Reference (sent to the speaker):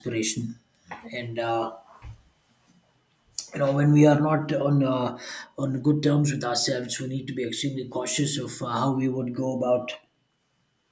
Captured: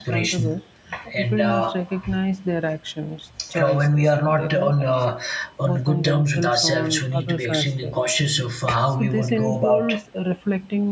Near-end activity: present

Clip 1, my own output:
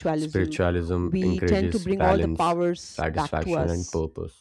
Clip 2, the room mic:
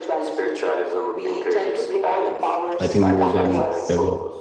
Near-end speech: present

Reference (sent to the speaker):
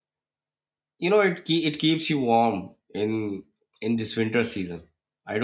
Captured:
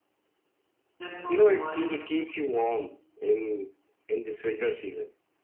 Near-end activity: present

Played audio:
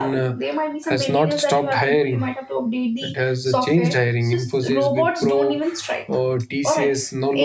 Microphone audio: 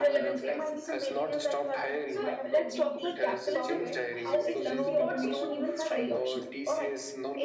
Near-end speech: present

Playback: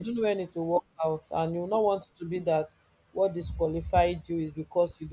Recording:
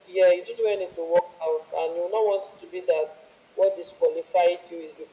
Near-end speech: none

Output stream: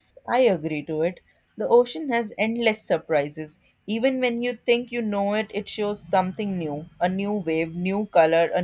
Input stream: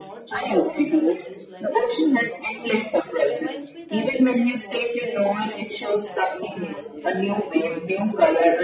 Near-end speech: present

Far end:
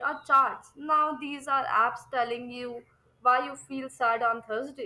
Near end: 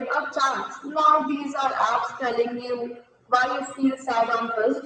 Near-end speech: none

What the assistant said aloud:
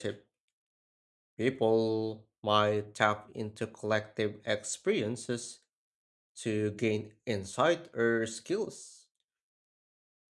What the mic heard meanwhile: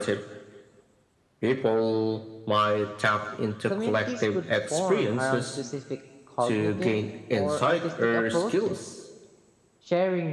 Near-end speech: present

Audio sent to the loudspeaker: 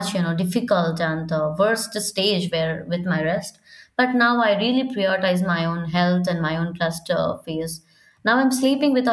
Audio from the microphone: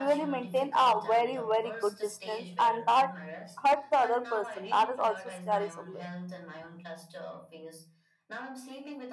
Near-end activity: present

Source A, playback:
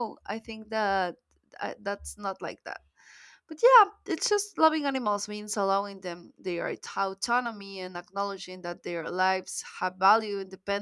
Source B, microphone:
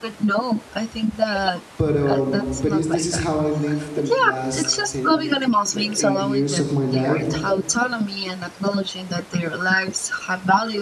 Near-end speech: present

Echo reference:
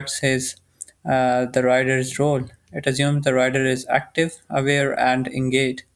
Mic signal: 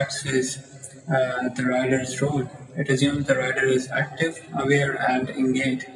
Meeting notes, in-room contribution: none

